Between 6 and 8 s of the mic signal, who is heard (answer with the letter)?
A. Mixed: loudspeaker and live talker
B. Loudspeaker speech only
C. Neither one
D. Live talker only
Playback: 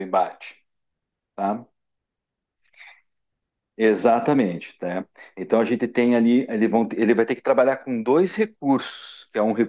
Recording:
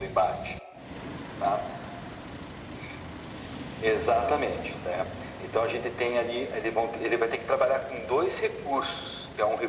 B